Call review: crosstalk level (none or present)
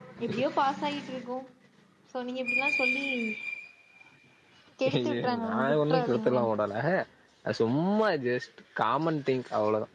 present